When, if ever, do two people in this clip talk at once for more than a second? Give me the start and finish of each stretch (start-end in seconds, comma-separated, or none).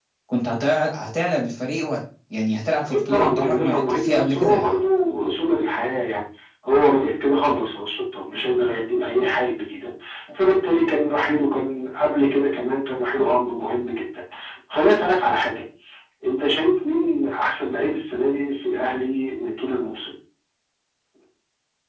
2.8-4.8